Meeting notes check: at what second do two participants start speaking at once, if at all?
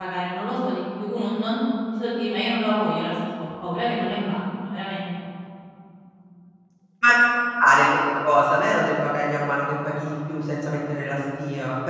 none

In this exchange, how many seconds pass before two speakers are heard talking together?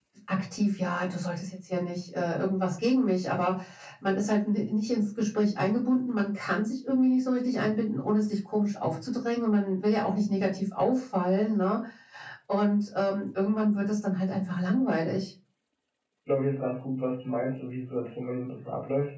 none

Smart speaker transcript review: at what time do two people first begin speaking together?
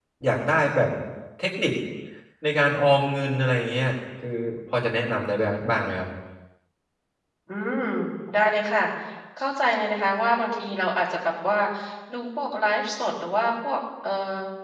none

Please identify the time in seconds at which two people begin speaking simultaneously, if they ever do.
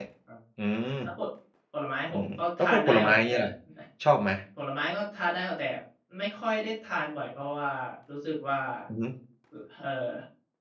2.1 s

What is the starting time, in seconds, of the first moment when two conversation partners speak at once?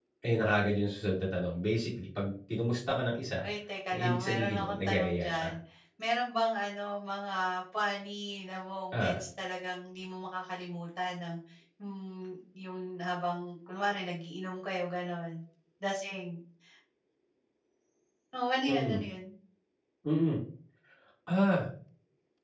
3.9 s

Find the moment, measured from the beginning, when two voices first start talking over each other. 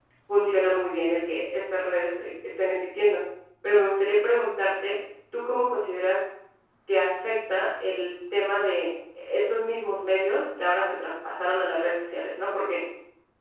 none

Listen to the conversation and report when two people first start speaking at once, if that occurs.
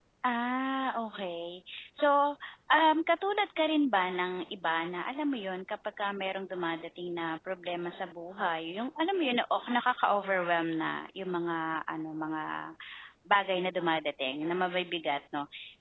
none

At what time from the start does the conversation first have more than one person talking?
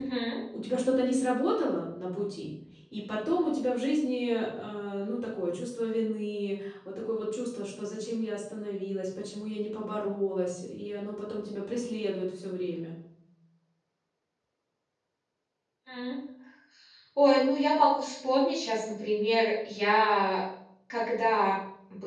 none

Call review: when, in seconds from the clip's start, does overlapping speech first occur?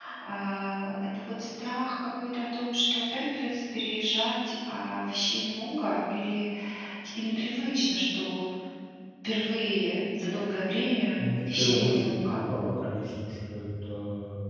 11.2 s

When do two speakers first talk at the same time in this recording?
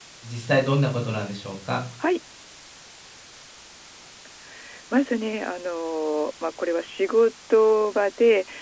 none

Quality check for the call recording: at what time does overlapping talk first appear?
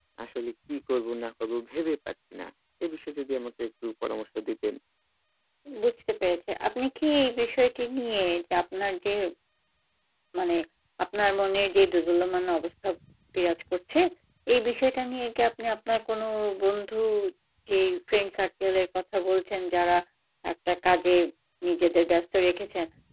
none

